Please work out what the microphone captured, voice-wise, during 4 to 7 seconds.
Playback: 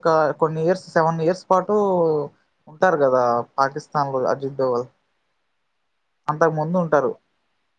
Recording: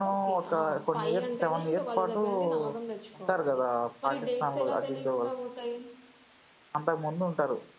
both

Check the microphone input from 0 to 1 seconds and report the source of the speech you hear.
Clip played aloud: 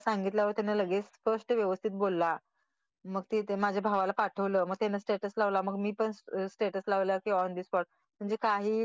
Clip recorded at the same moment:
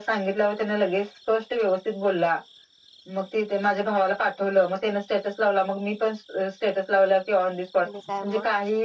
echo only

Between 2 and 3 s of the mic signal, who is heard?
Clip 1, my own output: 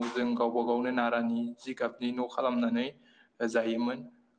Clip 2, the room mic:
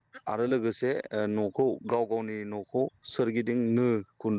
user only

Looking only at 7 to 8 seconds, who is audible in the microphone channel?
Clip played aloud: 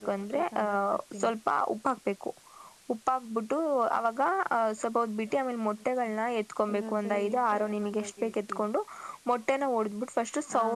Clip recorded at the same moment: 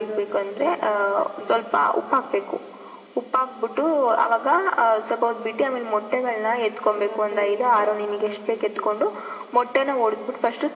echo only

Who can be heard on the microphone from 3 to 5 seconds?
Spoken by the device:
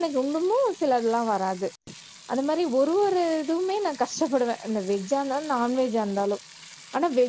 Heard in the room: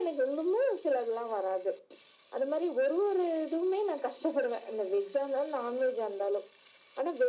echo only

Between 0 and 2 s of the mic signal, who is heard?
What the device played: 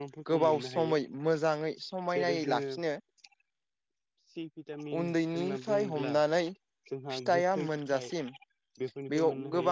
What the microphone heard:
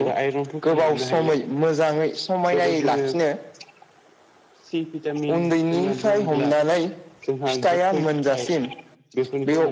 echo only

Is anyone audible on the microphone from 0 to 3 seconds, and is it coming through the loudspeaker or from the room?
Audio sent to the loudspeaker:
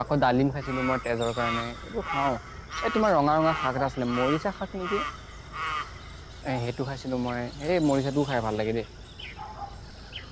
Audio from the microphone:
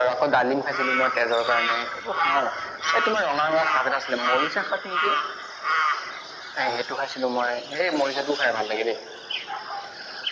echo only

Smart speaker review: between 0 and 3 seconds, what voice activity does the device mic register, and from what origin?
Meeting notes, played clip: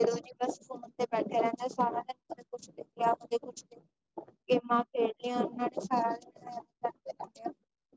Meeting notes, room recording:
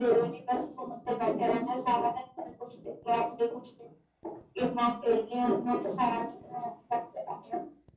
echo only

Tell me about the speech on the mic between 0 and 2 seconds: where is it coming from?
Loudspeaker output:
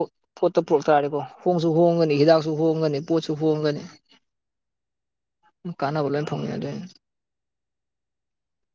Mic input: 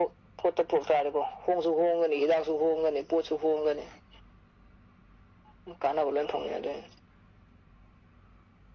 echo only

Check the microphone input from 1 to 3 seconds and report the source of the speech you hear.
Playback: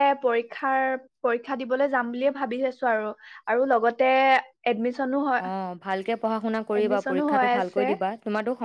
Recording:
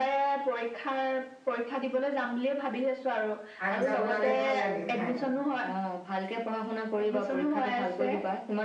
echo only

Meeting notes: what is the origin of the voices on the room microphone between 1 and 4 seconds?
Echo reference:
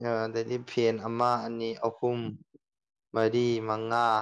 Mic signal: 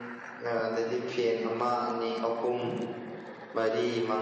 echo only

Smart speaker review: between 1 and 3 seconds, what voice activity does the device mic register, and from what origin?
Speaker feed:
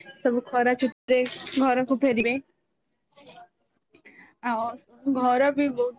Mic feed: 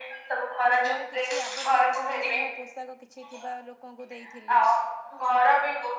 both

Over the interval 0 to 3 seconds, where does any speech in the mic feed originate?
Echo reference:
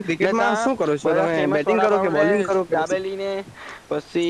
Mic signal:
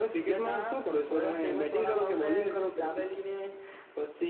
echo only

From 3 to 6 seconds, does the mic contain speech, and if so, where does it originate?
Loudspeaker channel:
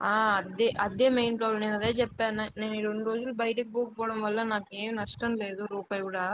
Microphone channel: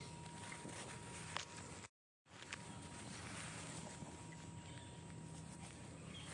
neither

